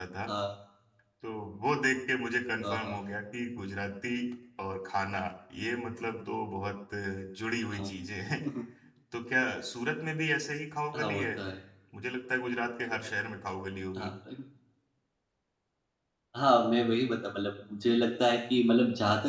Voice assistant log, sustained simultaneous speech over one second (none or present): none